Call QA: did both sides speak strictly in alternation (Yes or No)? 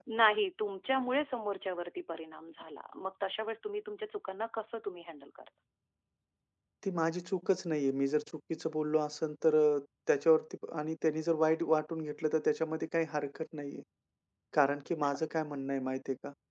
Yes